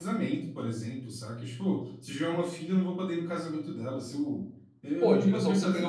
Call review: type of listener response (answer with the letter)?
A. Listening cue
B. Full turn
B